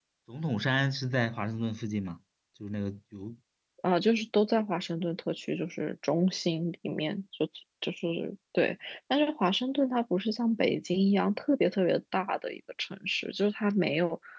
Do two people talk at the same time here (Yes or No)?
No